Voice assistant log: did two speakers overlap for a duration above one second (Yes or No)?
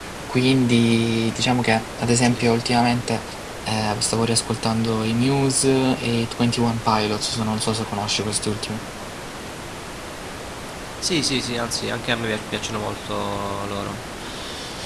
No